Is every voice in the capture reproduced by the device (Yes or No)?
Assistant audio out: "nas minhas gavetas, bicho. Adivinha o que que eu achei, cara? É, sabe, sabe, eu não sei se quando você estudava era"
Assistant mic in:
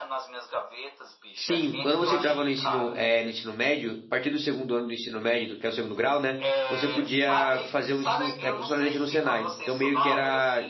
No